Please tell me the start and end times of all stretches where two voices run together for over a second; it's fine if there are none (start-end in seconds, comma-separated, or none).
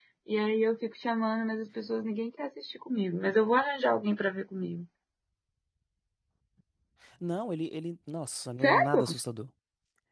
none